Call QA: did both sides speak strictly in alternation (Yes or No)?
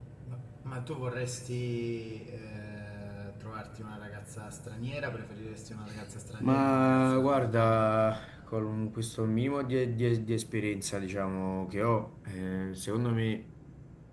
No